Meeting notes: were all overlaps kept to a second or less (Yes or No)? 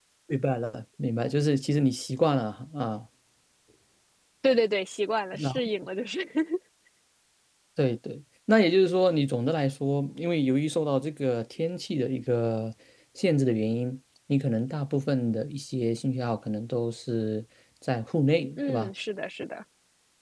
Yes